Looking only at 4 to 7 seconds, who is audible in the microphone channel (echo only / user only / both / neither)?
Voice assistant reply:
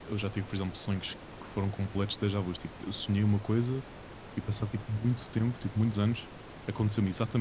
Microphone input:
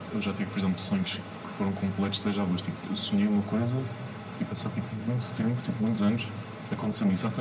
echo only